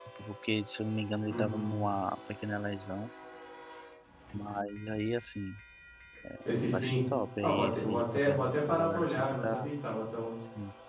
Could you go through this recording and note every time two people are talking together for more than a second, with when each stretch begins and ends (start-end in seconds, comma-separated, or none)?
7.4-9.7